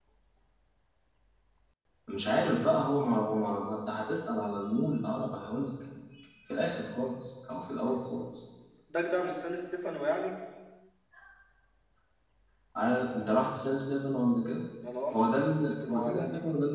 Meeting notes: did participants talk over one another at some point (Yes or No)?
Yes